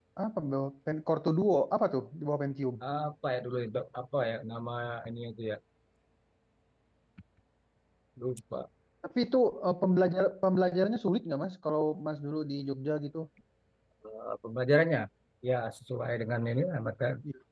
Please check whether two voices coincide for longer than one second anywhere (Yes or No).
No